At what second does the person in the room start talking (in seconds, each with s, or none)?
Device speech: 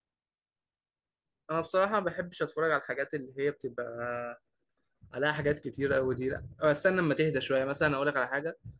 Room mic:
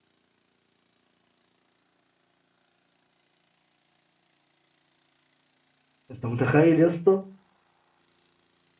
6.1 s